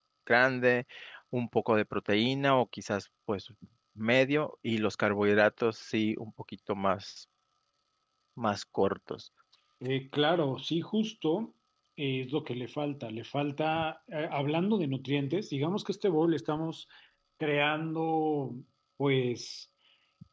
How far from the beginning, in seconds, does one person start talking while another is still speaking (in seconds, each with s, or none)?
none